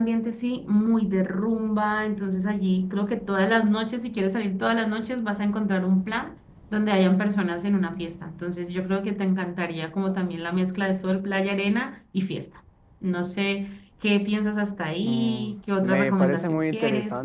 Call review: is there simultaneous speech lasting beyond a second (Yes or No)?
Yes